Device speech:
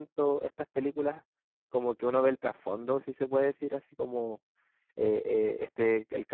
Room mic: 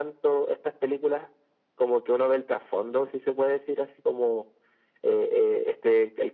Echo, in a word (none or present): present